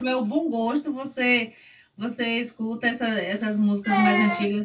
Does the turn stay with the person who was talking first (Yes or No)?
Yes